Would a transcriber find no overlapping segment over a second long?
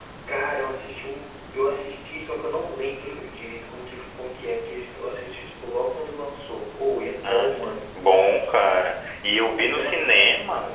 No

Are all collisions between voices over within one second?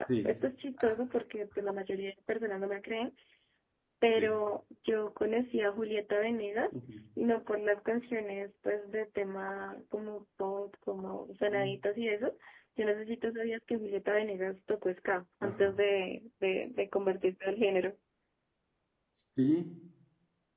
Yes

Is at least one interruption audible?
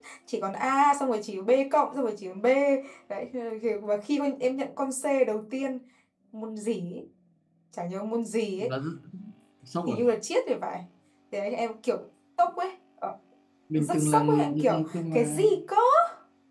Yes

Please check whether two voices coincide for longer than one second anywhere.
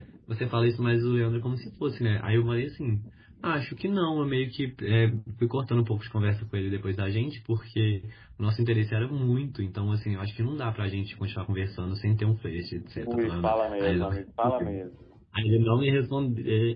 Yes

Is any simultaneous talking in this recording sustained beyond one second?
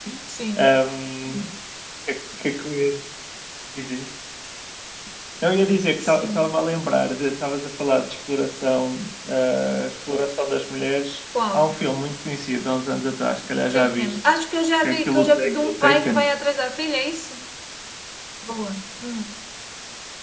Yes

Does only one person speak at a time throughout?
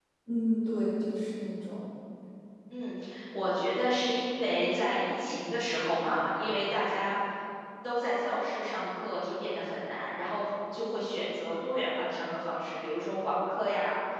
Yes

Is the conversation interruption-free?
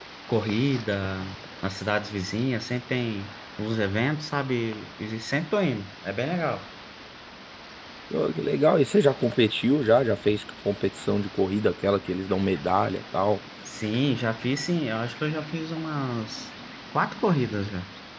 Yes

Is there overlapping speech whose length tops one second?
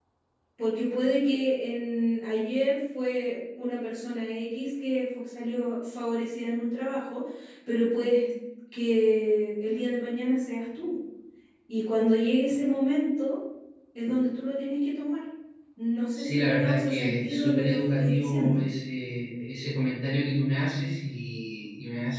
Yes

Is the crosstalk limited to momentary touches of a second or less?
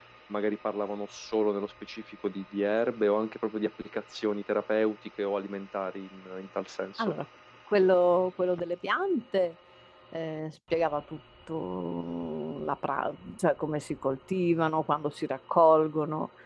Yes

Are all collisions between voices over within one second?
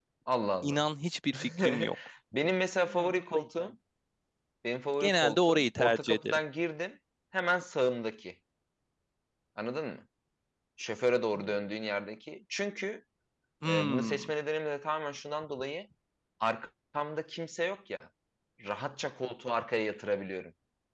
No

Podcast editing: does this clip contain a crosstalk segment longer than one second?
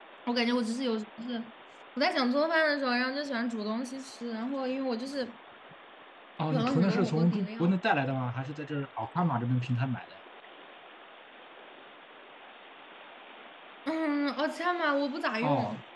Yes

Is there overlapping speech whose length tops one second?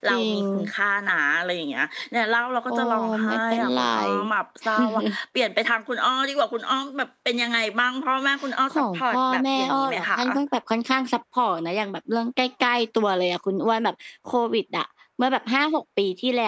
Yes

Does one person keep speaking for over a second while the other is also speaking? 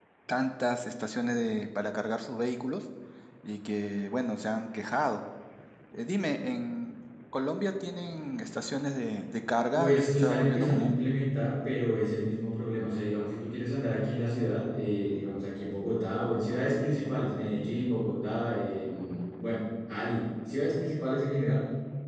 Yes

